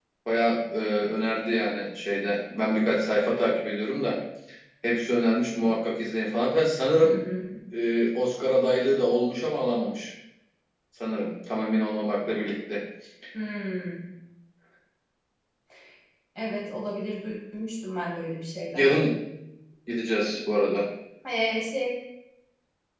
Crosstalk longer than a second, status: none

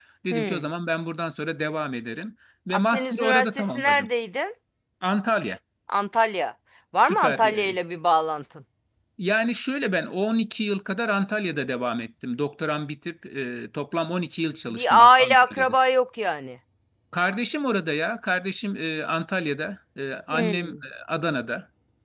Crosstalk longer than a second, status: present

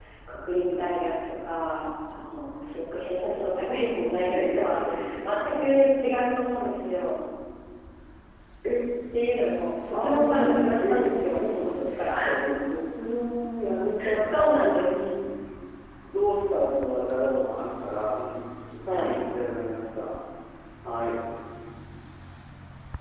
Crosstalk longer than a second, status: present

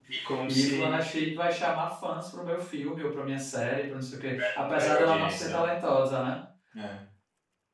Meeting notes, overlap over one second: present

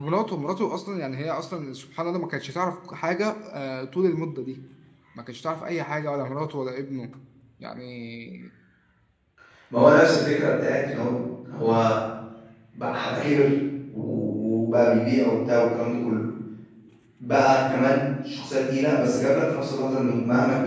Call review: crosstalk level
none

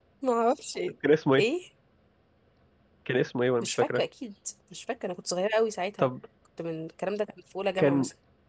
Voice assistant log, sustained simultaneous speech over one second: none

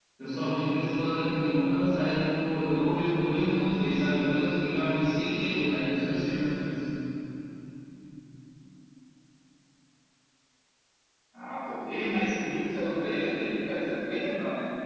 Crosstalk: none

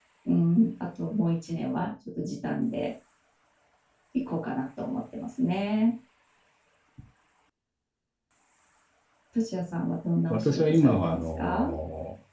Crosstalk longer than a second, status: present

